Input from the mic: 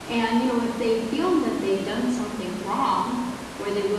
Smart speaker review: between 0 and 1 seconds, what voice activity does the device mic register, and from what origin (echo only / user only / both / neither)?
echo only